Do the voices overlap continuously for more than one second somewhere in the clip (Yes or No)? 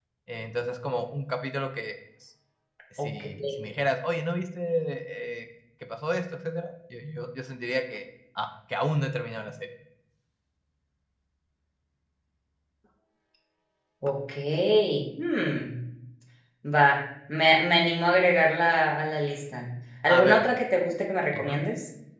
No